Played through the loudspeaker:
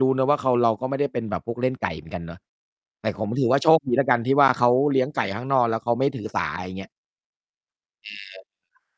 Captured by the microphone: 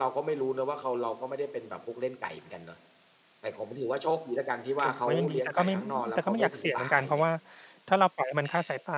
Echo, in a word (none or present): present